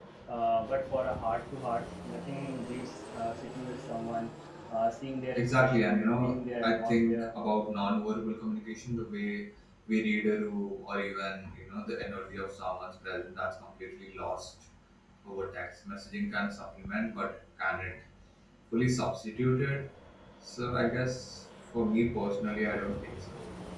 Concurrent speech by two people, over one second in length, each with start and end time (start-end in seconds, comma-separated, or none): 5.4-7.3